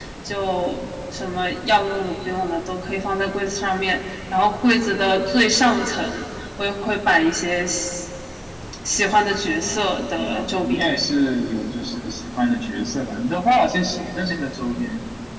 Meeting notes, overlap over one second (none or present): present